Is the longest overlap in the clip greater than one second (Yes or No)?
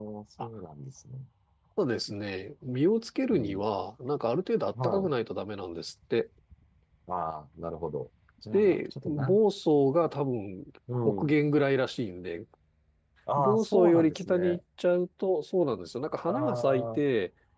Yes